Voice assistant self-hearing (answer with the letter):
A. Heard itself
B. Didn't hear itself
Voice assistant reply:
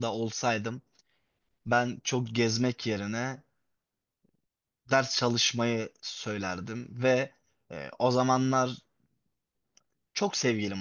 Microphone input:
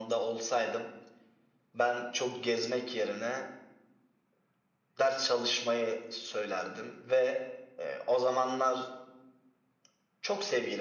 A